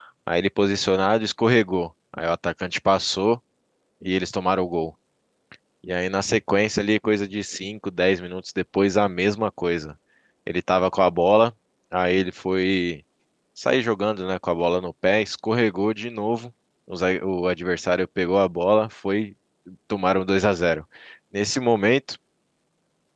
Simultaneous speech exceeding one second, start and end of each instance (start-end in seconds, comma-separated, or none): none